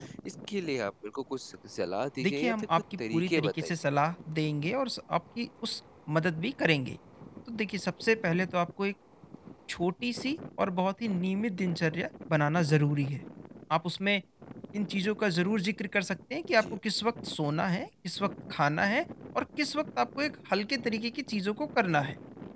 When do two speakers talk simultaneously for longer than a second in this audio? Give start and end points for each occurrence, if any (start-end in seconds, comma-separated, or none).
2.2-3.7